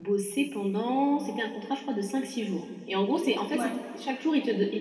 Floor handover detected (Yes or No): No